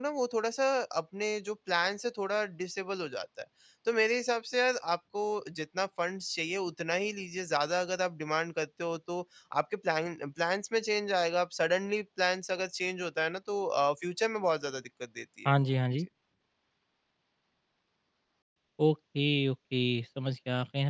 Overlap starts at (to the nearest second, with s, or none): none